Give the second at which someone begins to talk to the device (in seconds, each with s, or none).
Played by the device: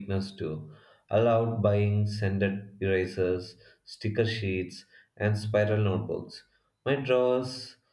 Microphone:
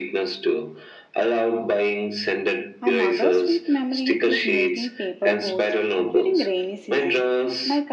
2.8 s